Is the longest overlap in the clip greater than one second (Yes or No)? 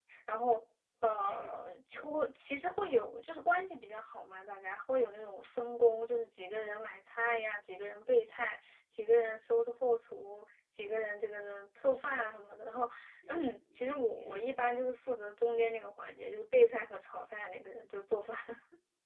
Yes